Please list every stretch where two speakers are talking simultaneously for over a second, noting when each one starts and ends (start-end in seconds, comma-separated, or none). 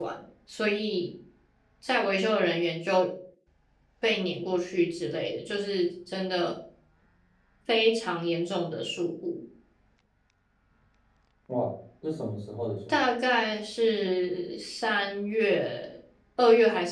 none